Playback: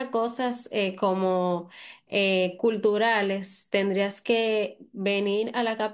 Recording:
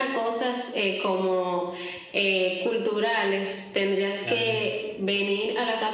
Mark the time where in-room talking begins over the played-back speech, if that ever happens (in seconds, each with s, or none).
4.2 s